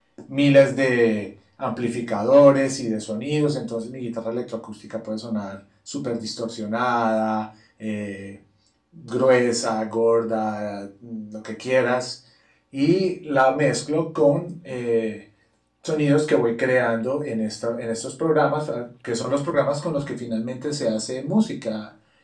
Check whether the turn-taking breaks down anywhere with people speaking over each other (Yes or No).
No